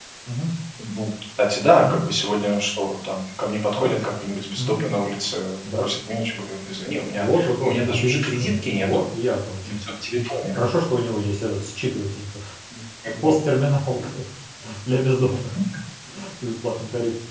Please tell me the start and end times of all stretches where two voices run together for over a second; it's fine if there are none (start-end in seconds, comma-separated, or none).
7.2-9.0